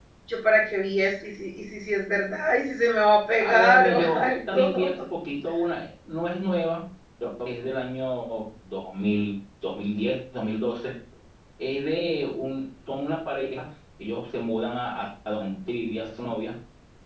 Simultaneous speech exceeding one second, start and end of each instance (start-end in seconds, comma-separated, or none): 3.4-4.9